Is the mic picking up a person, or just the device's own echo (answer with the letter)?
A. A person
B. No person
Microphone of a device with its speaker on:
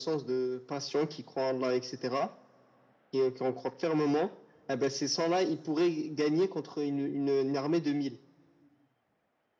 B